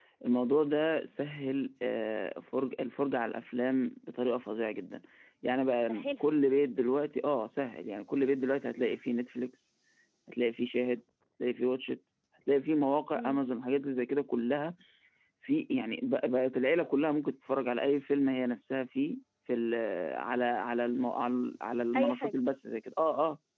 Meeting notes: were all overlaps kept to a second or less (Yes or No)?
Yes